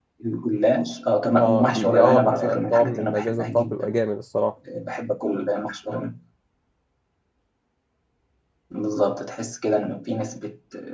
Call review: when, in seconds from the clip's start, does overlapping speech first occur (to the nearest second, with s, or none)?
1 s